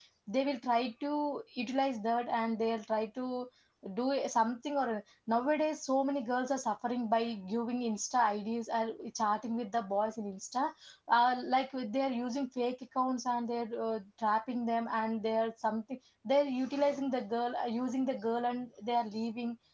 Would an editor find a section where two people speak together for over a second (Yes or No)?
No